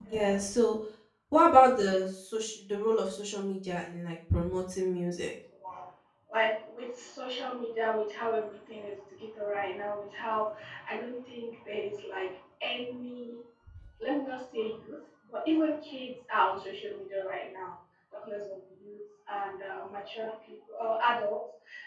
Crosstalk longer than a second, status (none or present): none